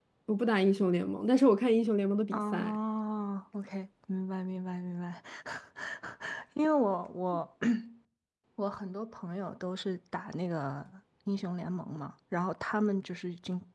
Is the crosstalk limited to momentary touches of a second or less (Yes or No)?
Yes